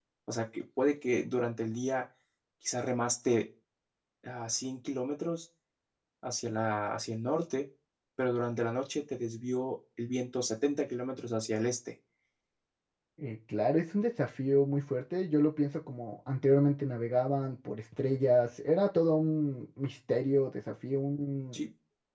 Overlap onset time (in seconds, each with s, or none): none